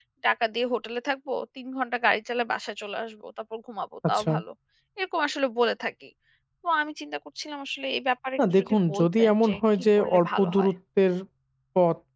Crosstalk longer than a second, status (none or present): present